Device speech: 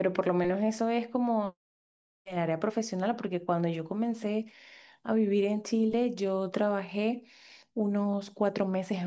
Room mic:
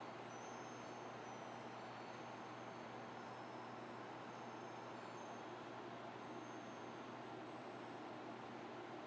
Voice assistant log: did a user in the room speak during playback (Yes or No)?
No